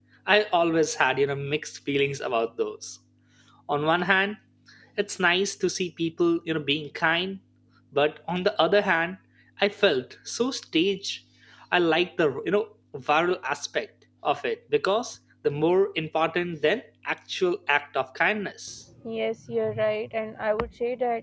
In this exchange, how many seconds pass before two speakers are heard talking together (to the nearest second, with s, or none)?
none